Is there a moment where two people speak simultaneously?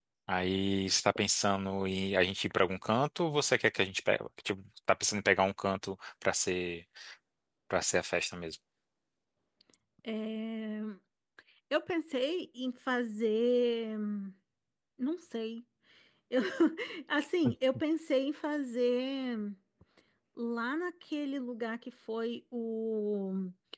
No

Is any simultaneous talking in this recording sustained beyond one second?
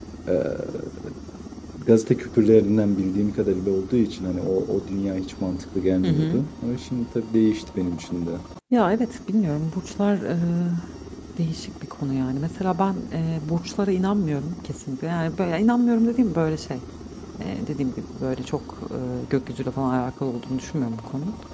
No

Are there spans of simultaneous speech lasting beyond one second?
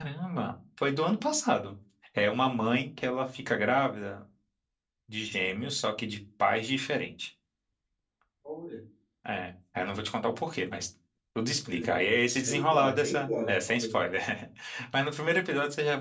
Yes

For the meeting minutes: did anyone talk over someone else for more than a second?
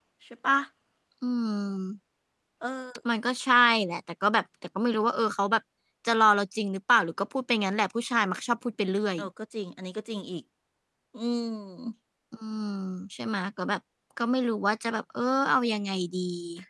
No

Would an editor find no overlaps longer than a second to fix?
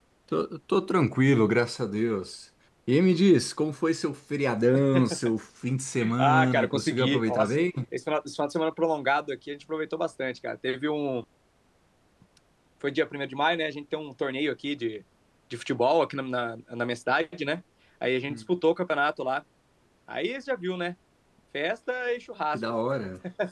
No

